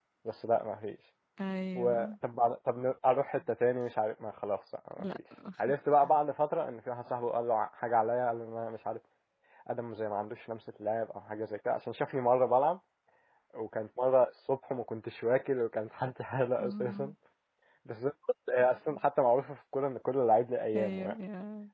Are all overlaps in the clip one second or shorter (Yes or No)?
Yes